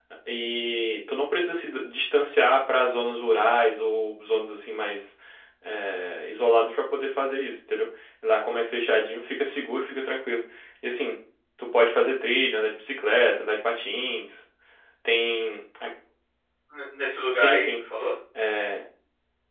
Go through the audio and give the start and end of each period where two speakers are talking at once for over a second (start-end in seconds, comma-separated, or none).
none